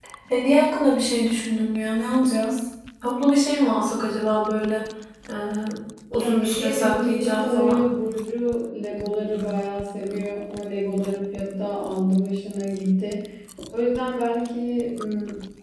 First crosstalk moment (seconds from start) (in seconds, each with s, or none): 6.2 s